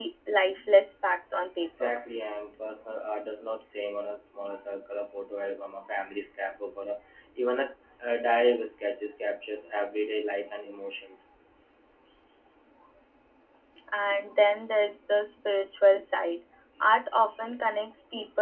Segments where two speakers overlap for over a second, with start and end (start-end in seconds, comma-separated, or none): none